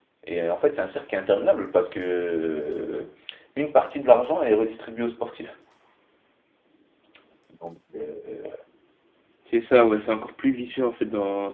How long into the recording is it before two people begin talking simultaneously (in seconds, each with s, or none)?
none